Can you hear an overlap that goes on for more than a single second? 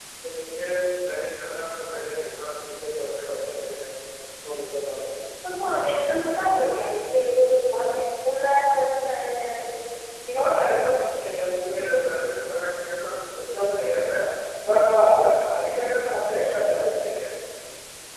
No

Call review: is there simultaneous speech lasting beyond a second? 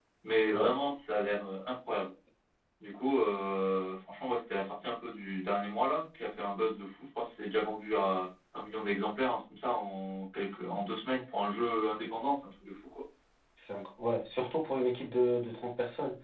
No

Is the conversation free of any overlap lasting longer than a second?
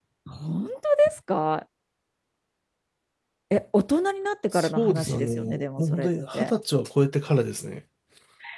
No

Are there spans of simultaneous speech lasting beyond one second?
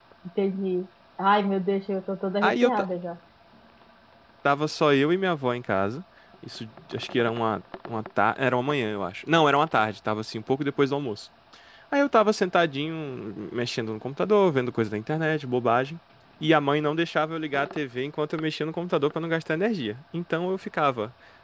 No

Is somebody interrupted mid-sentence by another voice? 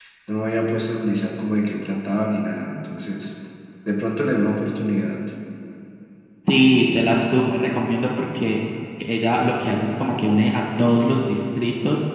No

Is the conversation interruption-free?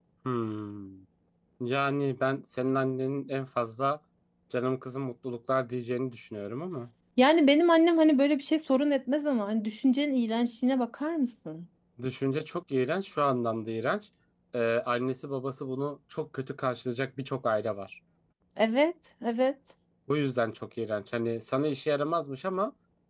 Yes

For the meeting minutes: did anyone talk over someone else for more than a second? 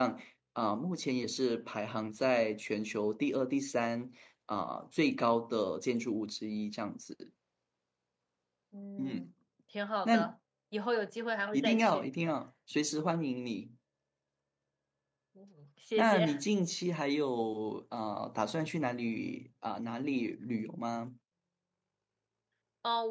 No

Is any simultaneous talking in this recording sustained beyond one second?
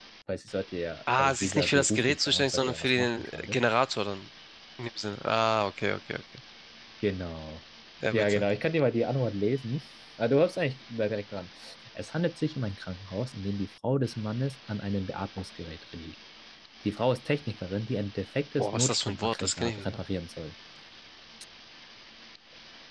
Yes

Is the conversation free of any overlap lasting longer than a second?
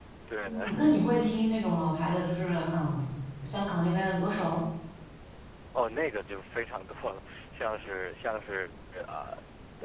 Yes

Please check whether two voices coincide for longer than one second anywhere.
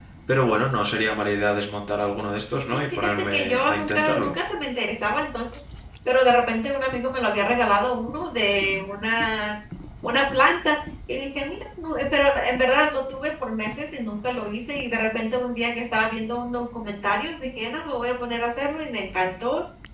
Yes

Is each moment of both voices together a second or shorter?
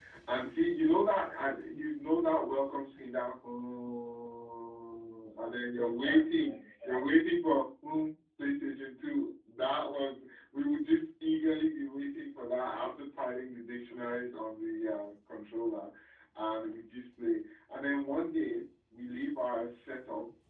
No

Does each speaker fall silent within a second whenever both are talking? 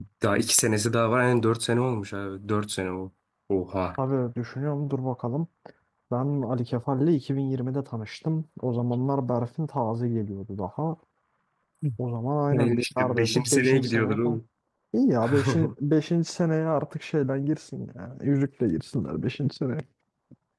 No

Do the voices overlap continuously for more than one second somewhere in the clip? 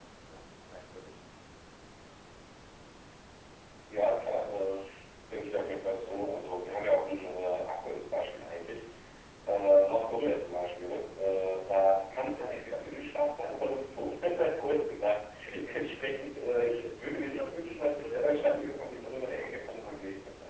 Yes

